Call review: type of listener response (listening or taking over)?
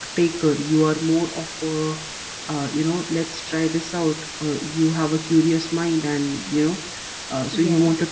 listening